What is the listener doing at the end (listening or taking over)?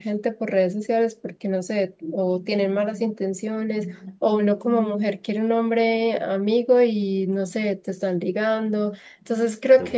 listening